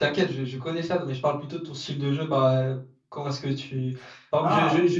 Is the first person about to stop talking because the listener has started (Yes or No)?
No